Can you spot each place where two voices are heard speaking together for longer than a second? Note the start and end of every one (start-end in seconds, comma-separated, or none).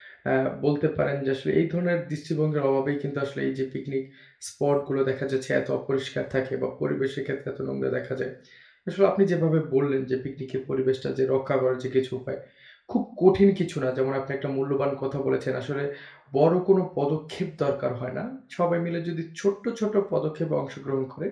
none